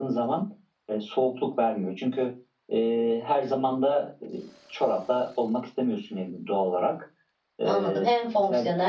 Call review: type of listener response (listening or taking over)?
taking over